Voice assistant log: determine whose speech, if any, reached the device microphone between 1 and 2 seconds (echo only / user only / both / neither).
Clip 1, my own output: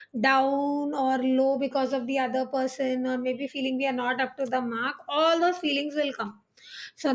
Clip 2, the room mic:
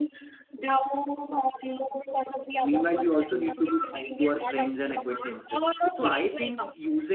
echo only